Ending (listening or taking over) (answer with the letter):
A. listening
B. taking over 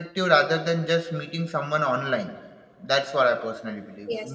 B